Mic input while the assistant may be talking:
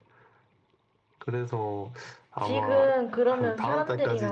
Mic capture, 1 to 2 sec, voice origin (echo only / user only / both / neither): echo only